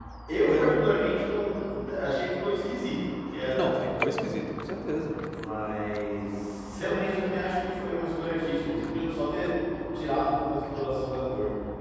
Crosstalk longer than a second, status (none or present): none